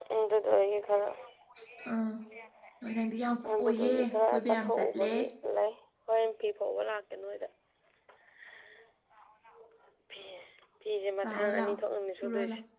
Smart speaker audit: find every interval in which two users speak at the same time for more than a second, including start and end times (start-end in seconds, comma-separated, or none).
3.6-5.1